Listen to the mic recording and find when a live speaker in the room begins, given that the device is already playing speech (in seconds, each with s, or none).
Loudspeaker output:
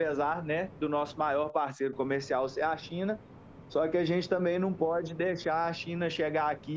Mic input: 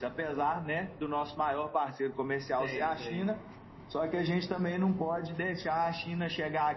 2.5 s